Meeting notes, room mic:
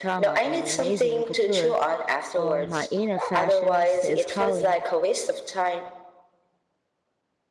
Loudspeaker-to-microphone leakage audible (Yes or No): Yes